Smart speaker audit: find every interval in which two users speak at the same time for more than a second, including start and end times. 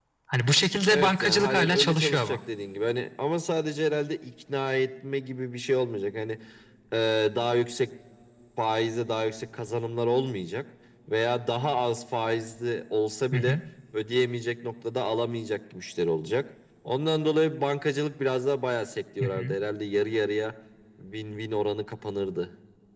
0.9-2.4

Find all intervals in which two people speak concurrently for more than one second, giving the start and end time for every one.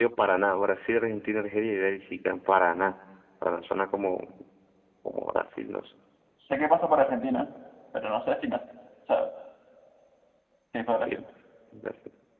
none

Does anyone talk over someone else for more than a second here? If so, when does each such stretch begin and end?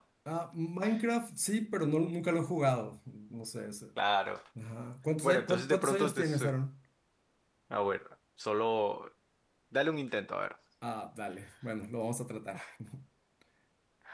5.2-6.5

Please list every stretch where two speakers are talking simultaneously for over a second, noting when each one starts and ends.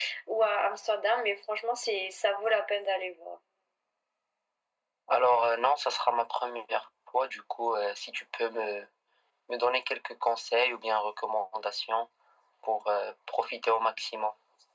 none

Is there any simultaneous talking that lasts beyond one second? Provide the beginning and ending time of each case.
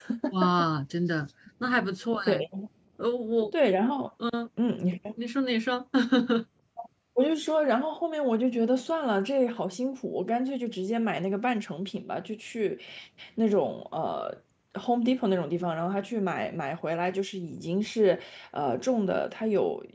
none

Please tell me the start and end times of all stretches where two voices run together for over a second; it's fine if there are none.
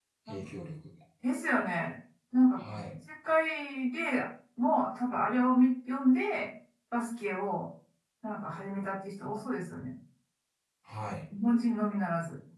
none

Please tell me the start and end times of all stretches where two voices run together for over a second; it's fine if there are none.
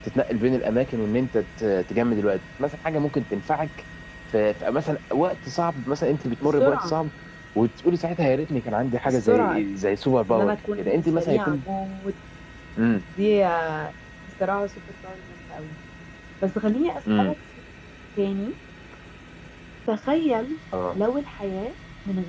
10.3-11.6

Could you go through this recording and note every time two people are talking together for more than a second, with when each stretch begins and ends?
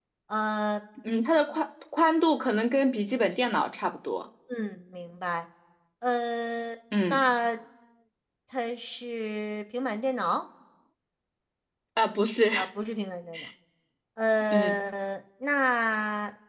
none

